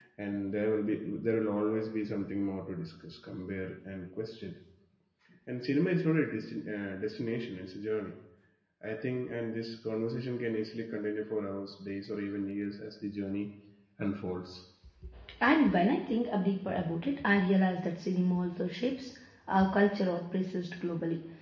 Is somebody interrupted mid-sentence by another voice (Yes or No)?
No